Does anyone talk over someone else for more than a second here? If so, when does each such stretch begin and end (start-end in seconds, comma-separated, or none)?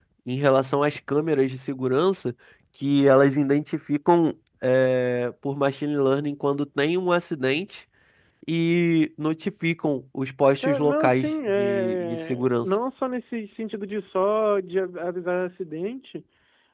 10.6-12.7